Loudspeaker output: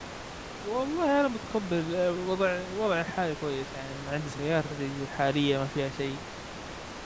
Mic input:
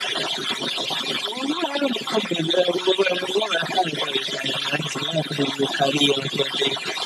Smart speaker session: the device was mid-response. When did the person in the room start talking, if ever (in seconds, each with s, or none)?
none